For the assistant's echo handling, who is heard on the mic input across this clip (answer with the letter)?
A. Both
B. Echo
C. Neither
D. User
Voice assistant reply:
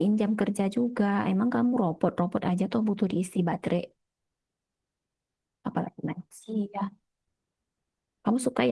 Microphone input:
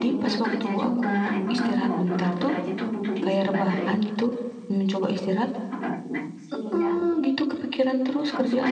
A